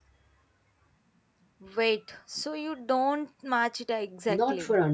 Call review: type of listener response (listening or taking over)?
taking over